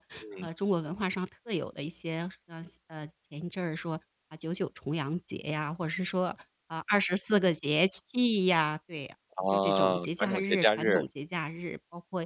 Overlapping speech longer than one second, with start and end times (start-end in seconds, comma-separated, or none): 9.5-11.0